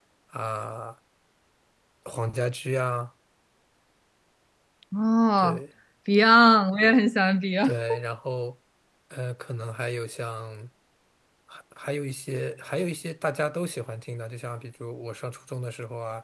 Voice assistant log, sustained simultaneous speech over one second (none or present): none